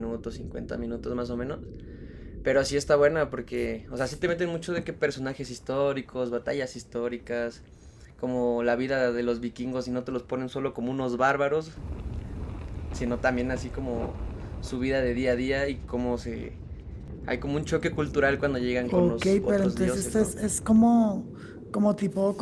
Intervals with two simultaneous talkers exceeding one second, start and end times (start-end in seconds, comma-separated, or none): 18.9-20.3